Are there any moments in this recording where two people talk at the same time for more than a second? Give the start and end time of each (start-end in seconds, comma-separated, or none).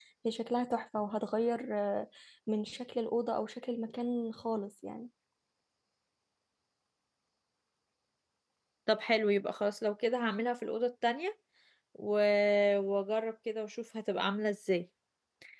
none